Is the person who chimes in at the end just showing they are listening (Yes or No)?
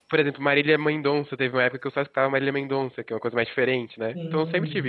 No